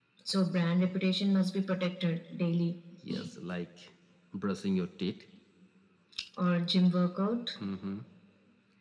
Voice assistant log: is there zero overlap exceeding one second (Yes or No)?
Yes